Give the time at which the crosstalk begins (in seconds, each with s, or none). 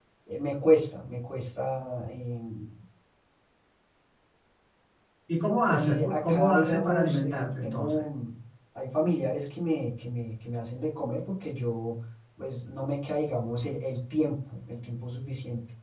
5.7 s